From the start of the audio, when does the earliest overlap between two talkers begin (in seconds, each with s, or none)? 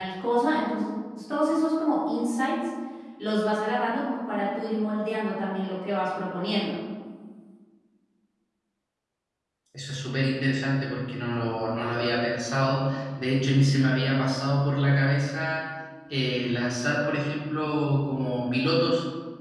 none